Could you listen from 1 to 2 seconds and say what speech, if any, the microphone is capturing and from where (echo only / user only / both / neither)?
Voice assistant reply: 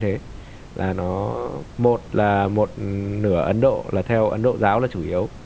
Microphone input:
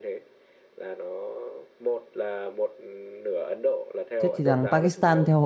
echo only